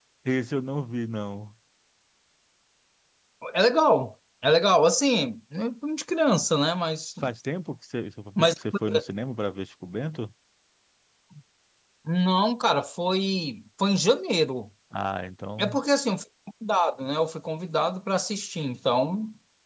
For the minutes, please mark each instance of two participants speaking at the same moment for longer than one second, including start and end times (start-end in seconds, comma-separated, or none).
none